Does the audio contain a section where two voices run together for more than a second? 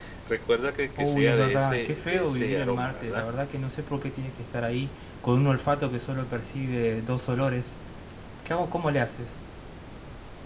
Yes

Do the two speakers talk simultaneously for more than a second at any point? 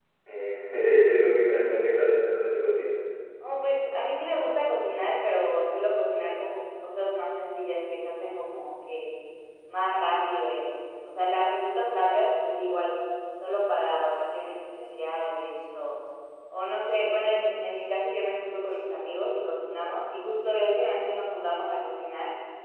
No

